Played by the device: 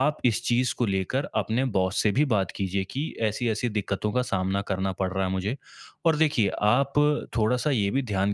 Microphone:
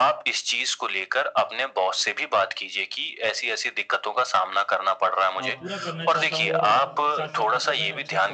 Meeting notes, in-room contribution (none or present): present